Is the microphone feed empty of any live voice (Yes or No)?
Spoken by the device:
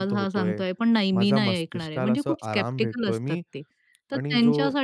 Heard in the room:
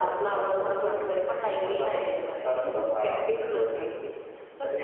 Yes